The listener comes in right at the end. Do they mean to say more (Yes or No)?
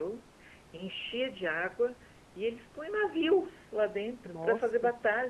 No